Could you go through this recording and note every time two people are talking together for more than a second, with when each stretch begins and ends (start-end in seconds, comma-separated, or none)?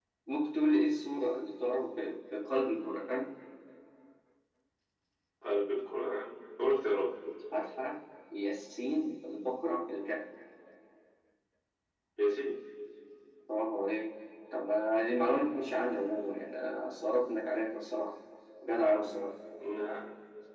none